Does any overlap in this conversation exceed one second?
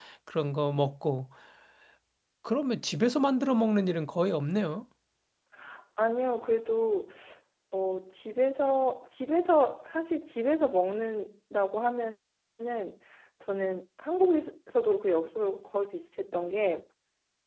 No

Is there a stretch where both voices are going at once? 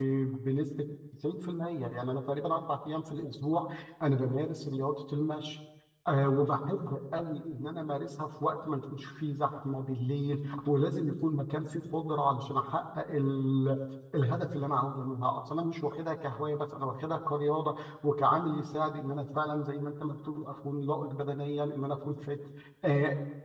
No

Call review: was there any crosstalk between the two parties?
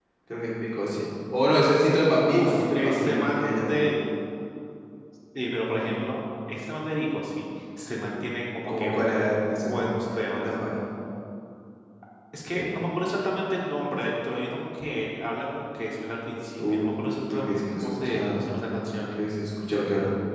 Yes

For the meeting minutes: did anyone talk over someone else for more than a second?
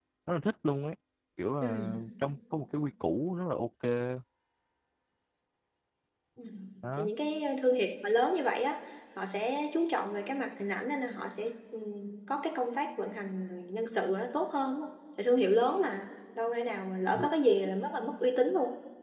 No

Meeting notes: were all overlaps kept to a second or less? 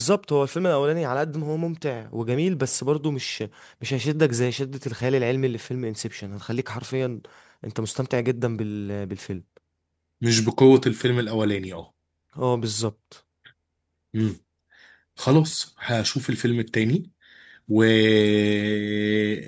Yes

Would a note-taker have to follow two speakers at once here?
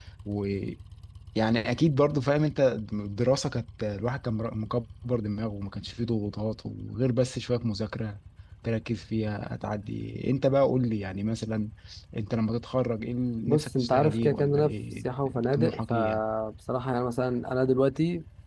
Yes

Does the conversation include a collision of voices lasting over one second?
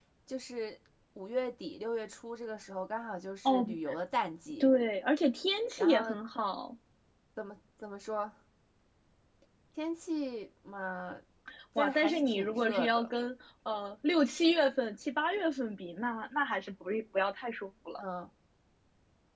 Yes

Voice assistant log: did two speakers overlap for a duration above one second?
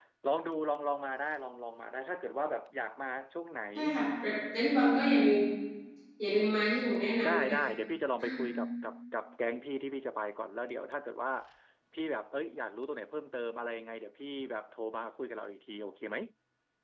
No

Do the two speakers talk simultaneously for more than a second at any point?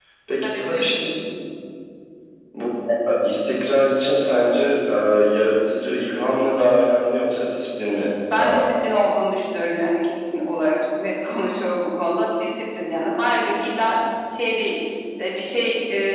No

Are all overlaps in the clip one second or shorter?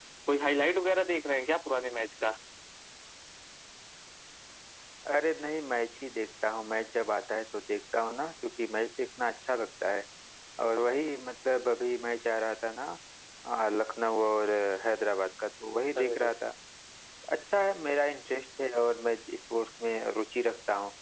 Yes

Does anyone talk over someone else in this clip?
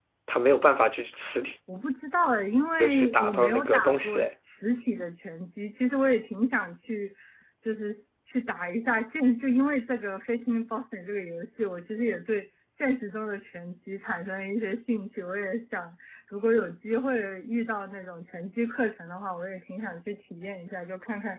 Yes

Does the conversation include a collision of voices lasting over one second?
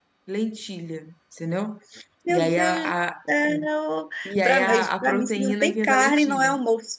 Yes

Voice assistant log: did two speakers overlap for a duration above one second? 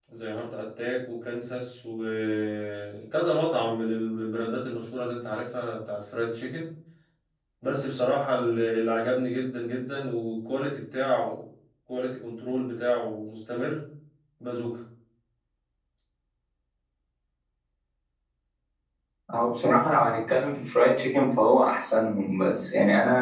No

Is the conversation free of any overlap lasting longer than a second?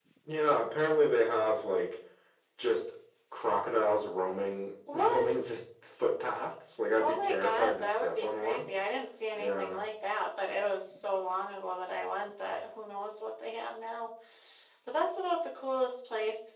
No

